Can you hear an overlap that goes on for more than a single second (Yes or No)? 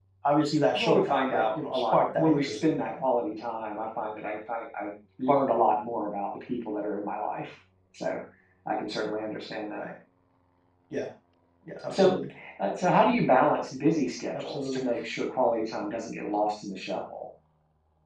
Yes